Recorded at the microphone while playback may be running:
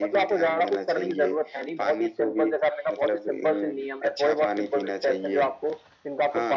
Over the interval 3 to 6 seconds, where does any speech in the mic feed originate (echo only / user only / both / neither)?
echo only